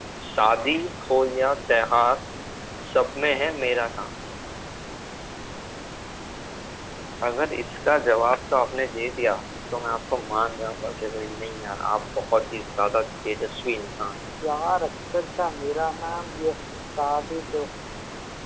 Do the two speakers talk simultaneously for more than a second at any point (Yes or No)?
No